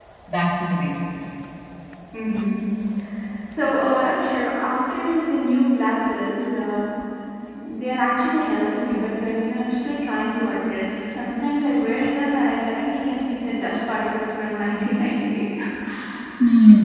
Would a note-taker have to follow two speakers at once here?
No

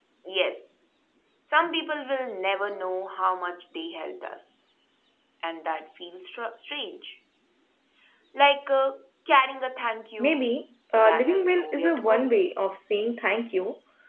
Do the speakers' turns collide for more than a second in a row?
Yes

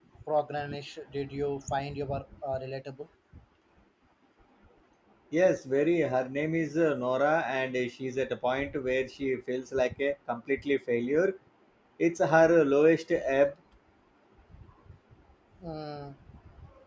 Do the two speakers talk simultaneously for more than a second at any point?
No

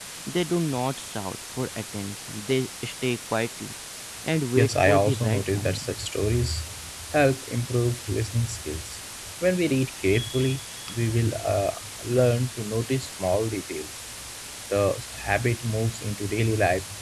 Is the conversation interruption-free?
No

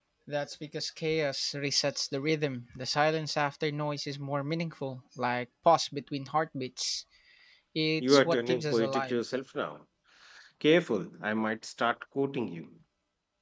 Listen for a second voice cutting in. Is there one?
Yes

